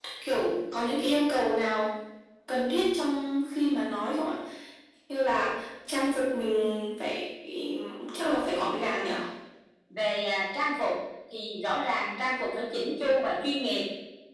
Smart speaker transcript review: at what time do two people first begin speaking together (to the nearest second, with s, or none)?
none